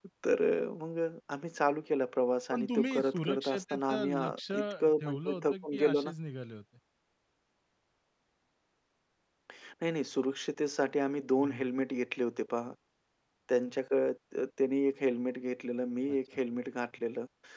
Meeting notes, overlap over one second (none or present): present